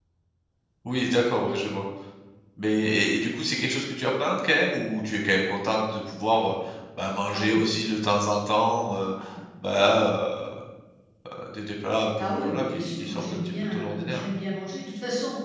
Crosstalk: present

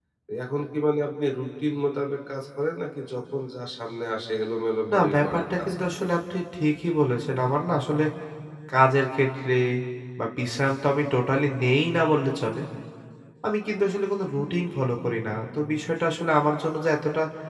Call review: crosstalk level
present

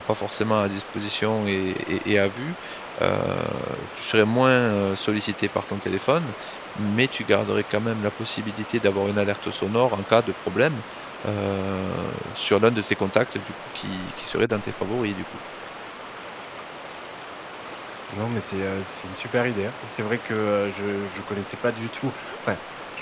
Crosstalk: none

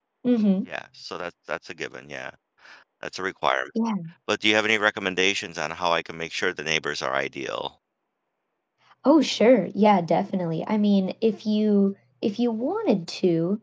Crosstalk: none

